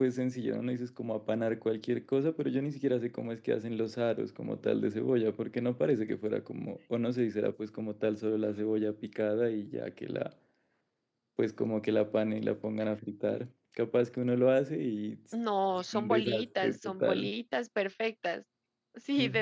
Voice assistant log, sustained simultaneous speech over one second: present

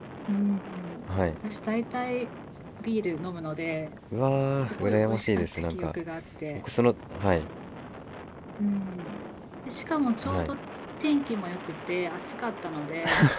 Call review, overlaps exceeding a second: present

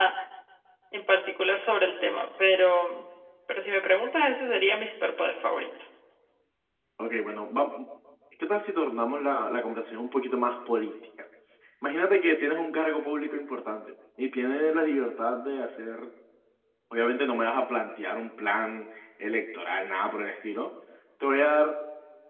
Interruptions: none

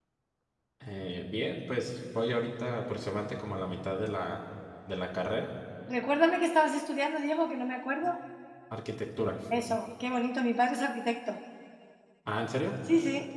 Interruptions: none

